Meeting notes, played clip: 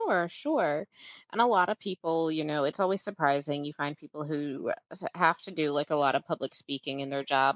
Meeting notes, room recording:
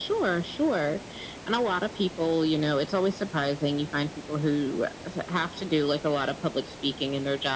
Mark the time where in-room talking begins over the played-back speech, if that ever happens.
none

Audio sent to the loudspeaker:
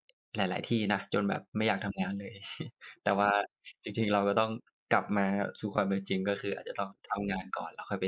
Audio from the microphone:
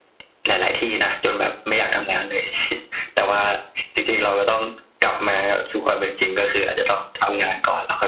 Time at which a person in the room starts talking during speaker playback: none

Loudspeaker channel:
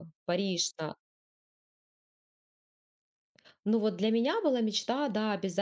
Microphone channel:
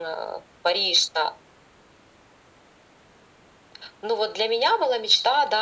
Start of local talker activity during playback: none

